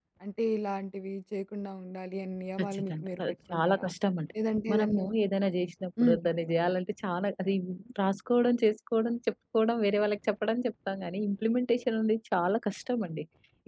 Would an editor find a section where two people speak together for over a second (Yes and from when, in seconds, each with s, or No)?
Yes, from 2.6 s